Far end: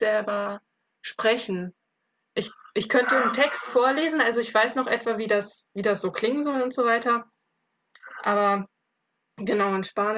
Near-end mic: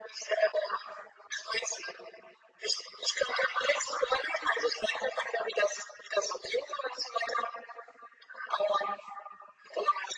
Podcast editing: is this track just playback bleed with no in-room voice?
Yes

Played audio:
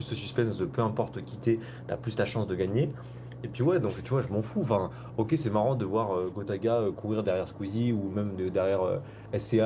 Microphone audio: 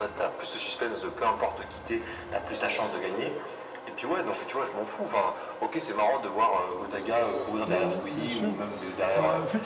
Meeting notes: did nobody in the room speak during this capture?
No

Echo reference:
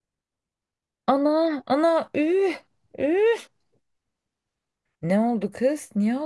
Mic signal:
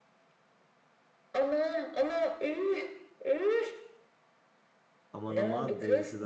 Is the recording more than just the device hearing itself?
Yes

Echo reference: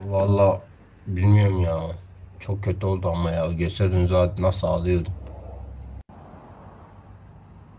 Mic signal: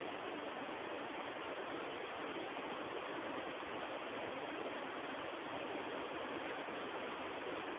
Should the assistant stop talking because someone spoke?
No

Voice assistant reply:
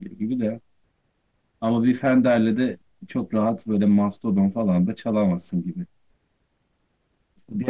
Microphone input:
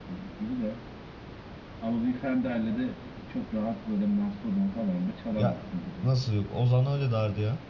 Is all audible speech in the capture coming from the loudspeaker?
No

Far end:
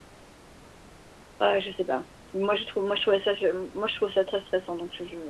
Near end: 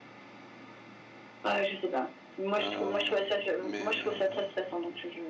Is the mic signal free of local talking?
No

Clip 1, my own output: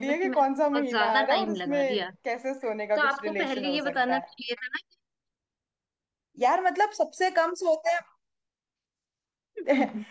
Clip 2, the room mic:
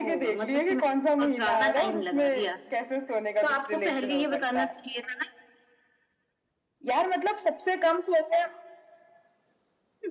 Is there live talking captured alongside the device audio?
No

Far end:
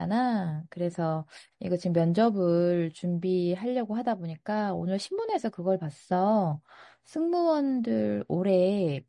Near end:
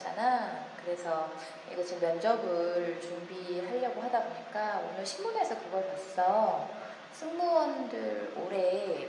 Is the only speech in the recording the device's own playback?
Yes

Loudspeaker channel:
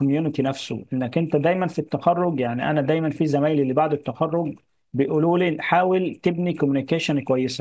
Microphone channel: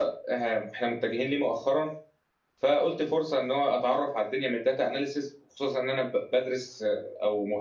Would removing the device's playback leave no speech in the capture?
No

